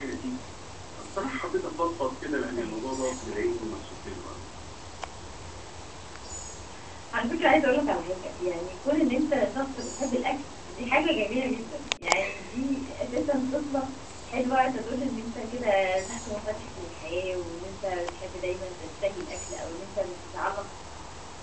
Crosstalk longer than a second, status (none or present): none